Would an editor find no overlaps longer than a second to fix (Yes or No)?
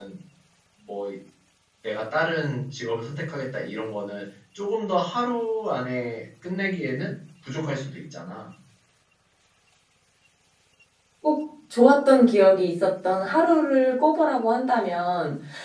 Yes